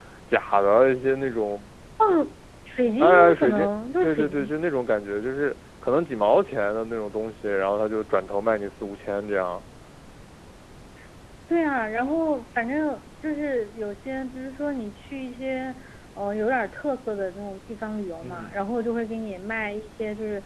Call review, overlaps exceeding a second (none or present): present